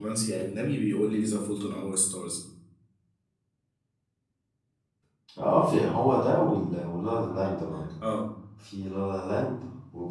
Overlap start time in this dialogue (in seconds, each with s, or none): none